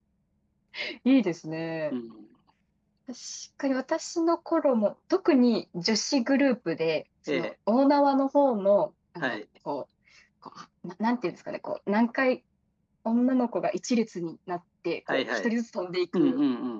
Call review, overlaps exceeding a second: none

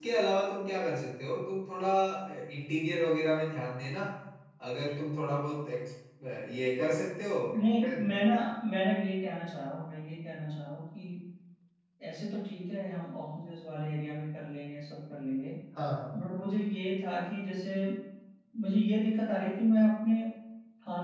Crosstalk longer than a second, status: none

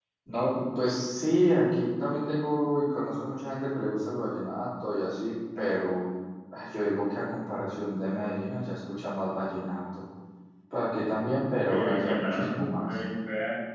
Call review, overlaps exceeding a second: present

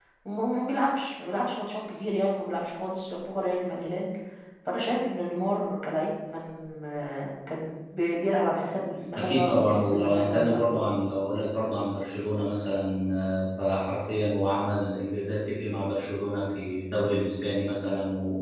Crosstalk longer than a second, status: present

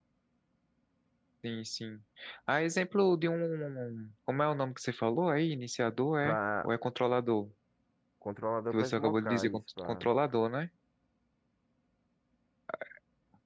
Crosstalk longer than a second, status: present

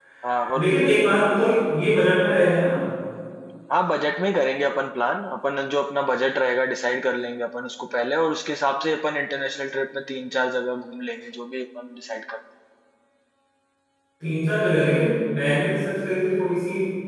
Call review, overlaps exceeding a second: none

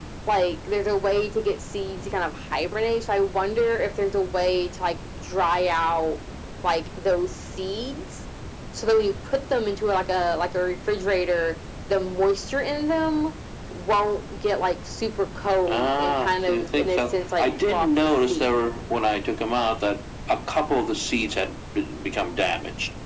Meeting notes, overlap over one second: present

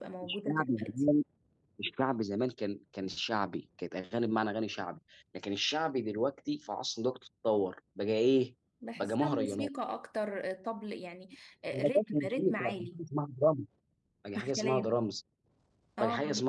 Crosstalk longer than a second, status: present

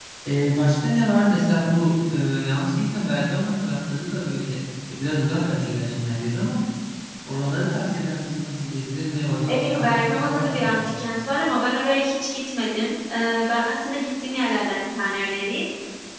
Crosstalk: present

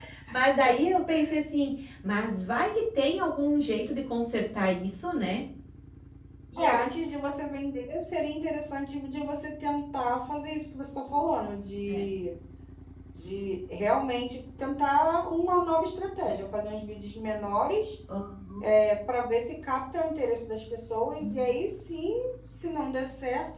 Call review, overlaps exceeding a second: none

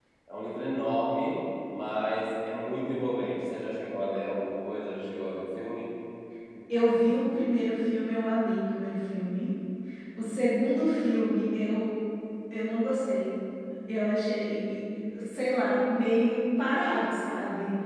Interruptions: none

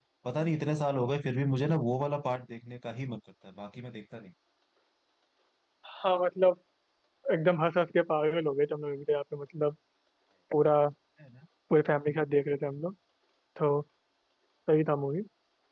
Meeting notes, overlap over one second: none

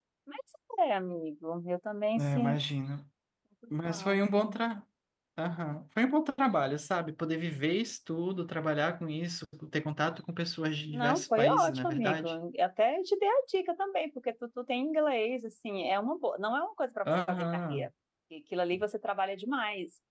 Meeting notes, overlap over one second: present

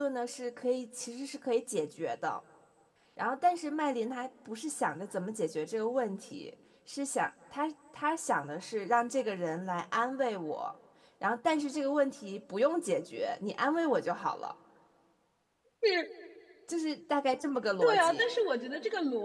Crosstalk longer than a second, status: none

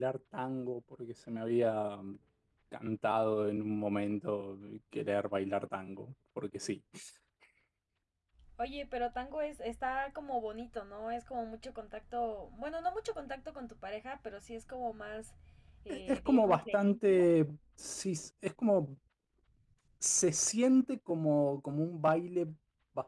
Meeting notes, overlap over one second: present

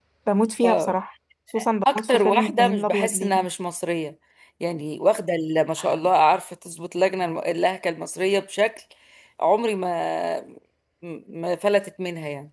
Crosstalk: present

